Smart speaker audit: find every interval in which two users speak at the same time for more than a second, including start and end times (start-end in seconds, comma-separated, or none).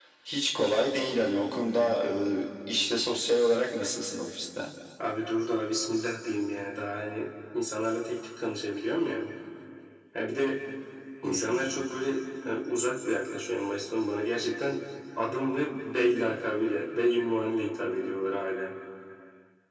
none